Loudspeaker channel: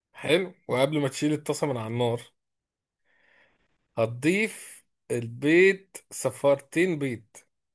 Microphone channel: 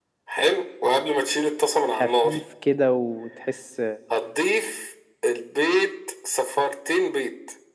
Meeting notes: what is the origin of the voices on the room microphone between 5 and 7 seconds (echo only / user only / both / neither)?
echo only